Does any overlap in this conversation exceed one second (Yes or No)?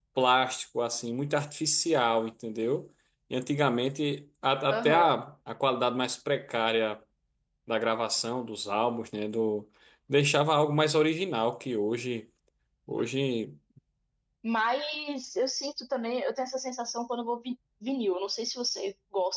No